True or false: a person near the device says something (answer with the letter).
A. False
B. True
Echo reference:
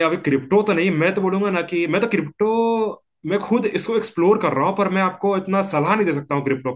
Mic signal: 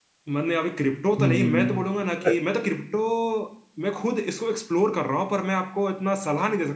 B